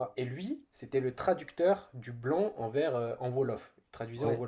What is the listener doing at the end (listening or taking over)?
listening